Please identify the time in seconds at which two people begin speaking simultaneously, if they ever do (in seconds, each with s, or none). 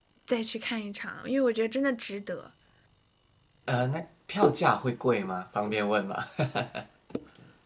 none